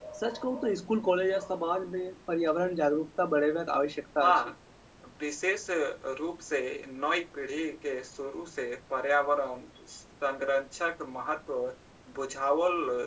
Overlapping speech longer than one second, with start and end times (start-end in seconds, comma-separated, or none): none